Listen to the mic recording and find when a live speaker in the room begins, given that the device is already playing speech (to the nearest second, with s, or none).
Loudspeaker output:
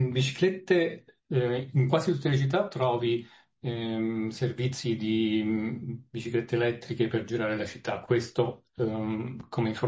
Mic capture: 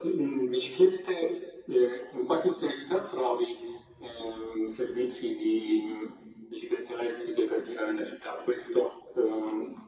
none